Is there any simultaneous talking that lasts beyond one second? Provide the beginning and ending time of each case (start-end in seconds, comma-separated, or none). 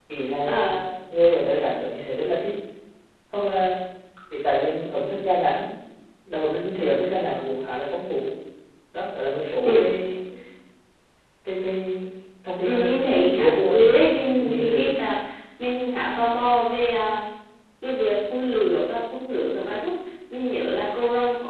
12.6-14.9